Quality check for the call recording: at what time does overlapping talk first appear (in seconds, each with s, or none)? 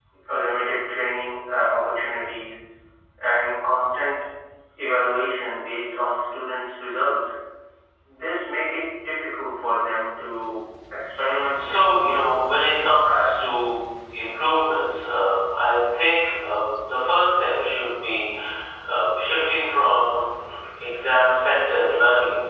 11.5 s